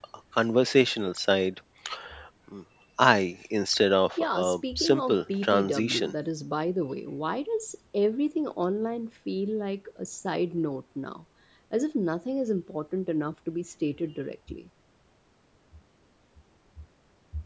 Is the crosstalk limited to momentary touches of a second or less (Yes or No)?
No